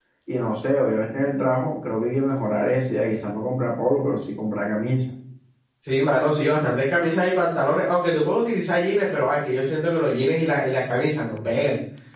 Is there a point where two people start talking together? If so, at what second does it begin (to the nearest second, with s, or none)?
none